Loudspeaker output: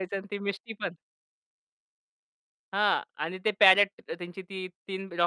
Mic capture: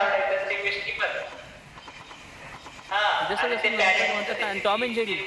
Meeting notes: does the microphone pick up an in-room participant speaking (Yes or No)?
Yes